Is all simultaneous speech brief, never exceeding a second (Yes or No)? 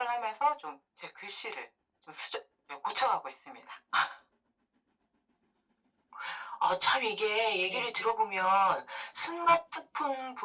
Yes